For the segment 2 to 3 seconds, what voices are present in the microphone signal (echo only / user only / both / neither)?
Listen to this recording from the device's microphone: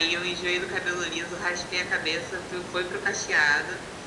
echo only